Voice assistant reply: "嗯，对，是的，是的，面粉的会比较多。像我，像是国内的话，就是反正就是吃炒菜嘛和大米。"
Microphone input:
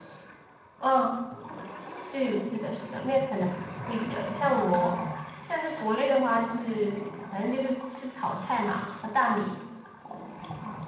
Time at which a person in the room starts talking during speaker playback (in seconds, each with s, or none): 4.8 s